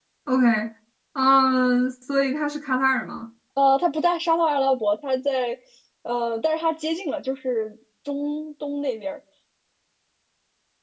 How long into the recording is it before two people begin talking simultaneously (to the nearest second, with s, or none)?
none